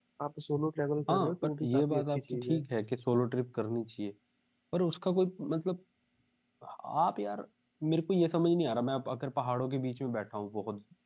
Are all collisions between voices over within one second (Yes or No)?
No